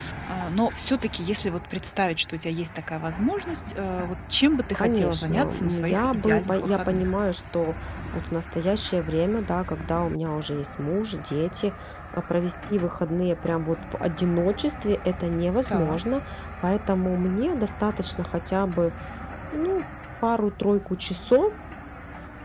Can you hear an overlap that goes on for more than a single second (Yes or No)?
Yes